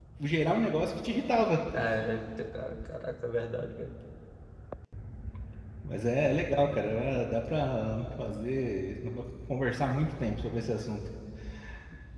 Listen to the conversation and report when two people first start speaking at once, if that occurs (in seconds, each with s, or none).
none